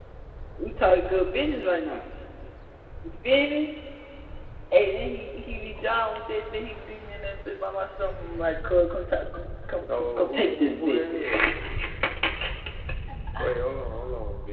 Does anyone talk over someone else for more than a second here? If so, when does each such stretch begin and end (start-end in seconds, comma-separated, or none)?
10.0-11.4